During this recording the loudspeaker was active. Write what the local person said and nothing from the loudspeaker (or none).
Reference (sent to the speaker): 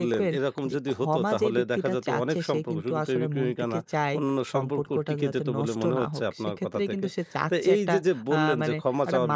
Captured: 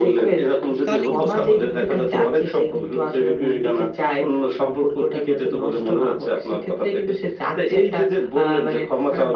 তাহলে কিন্তু সম্পর্ক কিন্তু